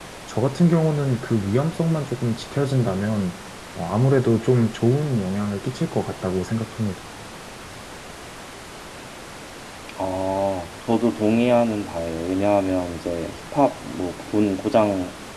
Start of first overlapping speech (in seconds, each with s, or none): none